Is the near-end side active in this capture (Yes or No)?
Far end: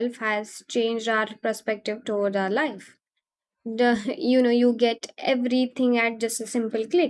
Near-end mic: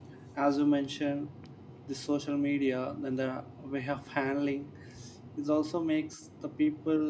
Yes